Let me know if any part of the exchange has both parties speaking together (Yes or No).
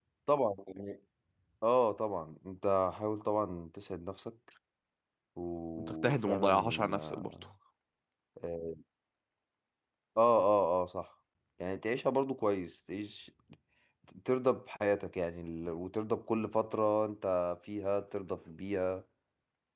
Yes